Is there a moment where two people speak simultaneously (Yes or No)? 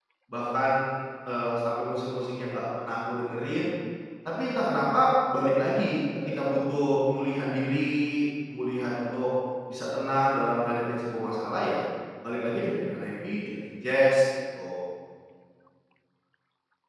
No